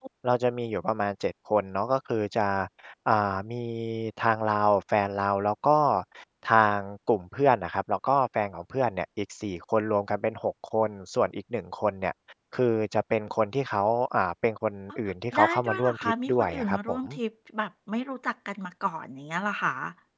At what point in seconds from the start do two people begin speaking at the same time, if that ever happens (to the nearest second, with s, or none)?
15 s